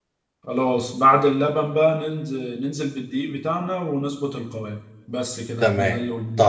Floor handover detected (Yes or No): Yes